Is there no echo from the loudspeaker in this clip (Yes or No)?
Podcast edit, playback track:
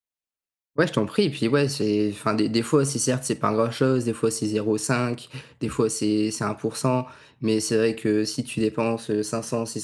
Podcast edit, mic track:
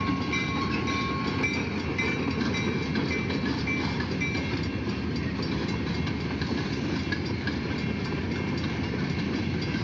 Yes